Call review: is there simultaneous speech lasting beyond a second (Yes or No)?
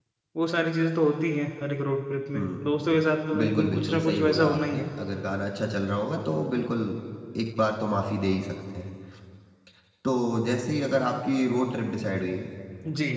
Yes